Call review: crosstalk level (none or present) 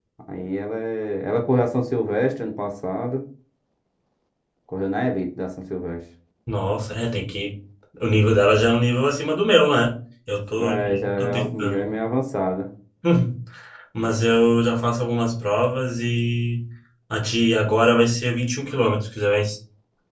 present